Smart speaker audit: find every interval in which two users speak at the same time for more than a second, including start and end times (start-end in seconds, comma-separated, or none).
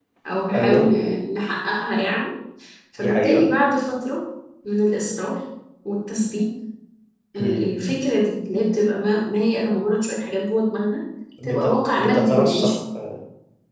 11.4-12.7